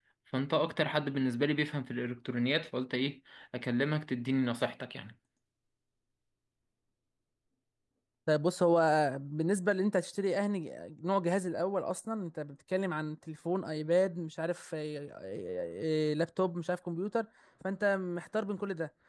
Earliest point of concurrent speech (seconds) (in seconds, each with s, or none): none